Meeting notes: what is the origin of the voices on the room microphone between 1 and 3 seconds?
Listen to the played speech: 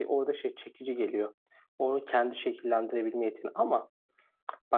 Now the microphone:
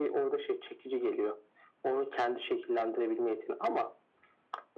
echo only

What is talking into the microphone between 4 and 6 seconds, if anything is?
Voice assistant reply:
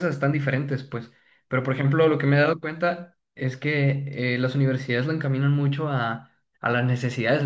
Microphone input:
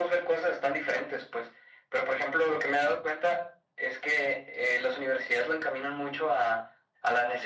echo only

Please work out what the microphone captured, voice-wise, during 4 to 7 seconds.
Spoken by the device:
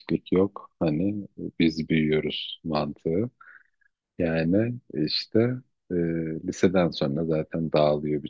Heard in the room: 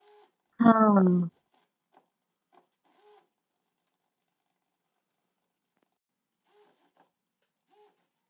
neither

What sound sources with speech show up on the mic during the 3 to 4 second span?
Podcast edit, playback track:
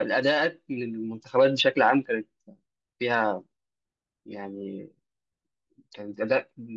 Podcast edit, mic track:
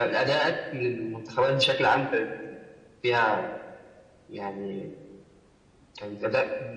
echo only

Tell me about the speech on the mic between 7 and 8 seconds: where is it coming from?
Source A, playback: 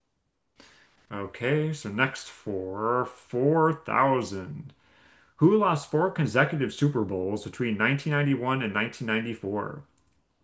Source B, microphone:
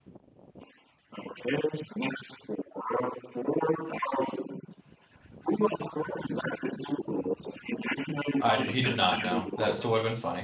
echo only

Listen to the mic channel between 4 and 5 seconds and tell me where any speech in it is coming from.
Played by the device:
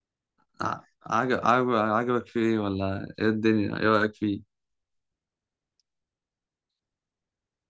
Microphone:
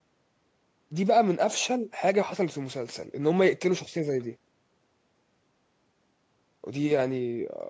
user only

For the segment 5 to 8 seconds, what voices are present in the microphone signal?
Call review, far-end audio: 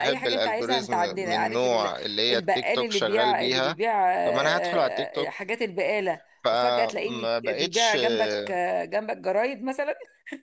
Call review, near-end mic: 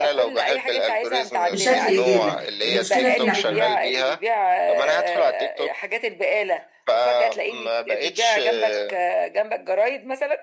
echo only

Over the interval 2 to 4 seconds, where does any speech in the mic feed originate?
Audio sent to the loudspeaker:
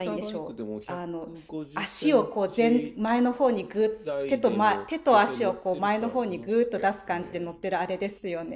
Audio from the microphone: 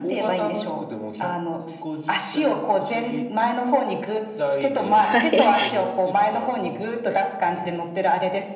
echo only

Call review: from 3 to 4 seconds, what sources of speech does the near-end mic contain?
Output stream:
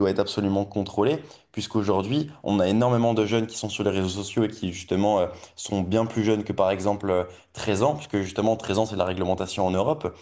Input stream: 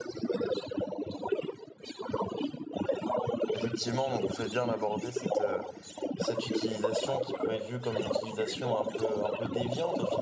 both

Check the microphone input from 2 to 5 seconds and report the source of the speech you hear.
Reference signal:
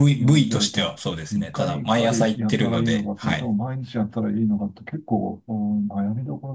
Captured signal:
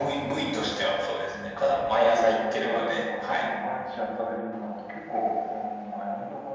echo only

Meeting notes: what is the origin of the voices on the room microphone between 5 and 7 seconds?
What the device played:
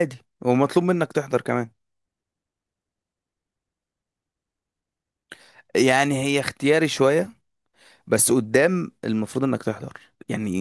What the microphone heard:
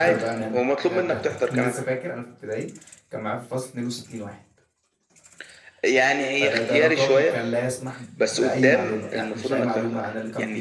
both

